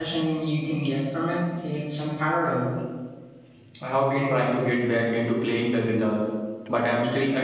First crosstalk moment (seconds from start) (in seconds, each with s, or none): none